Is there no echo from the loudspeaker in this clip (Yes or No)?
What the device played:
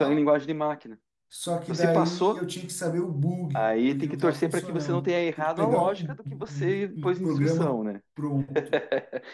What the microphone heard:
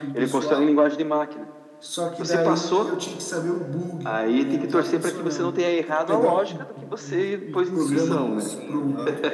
No